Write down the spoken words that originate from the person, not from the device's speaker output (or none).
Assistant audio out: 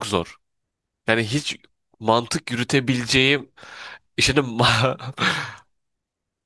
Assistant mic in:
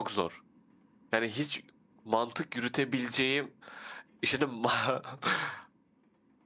none